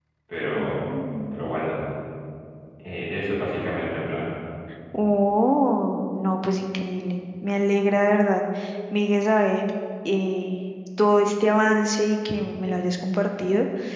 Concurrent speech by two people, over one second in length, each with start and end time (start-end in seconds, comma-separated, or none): none